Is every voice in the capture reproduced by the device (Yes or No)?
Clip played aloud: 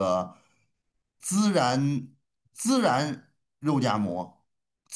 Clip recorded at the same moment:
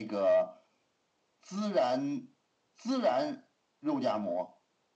Yes